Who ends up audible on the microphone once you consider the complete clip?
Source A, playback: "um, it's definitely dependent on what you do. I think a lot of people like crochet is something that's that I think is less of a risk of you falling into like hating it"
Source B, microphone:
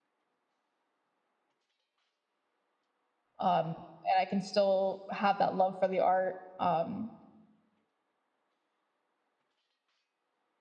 user only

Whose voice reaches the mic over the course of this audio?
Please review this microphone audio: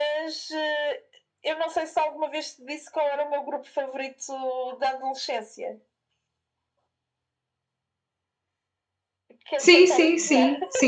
both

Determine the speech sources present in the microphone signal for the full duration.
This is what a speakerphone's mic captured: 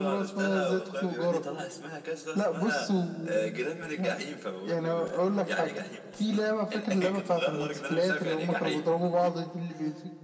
echo only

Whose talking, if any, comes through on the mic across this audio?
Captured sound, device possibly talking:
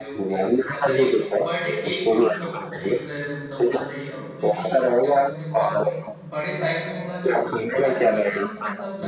both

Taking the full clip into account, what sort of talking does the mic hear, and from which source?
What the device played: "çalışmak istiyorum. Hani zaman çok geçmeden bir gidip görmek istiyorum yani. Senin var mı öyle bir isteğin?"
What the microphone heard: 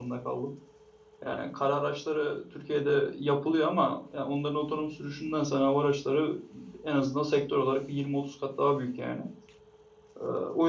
user only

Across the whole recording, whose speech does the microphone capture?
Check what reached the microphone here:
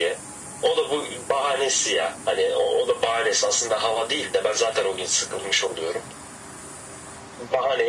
echo only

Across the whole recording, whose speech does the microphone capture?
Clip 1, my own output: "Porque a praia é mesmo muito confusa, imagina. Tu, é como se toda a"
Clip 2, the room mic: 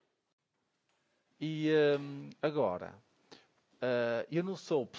user only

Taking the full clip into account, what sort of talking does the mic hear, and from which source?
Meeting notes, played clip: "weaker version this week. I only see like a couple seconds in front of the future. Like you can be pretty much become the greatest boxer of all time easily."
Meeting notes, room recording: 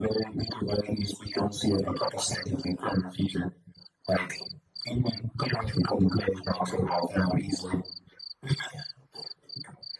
echo only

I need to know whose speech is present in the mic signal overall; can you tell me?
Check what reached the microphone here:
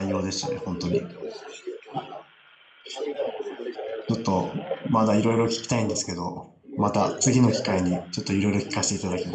both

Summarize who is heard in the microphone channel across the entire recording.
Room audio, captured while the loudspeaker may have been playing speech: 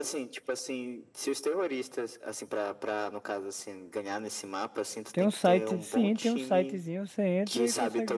both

